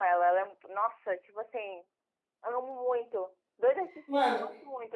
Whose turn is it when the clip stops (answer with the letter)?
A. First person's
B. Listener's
A